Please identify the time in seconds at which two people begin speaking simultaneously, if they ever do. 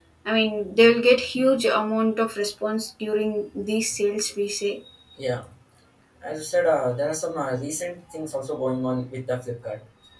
none

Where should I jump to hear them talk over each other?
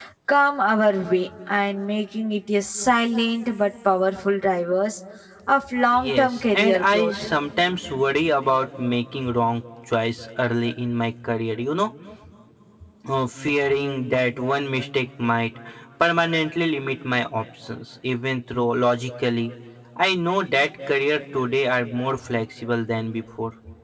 6 s

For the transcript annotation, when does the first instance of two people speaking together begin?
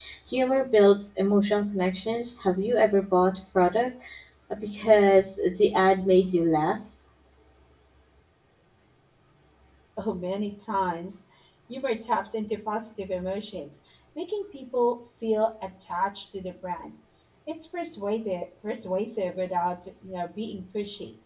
none

